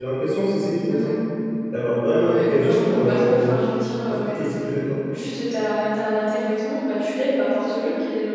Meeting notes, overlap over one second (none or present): present